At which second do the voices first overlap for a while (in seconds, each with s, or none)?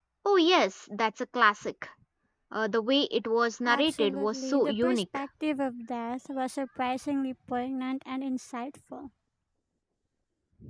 3.6 s